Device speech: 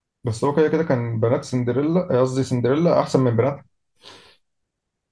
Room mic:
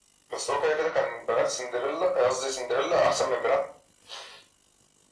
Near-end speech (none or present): none